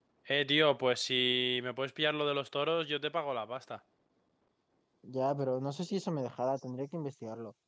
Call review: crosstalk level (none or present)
none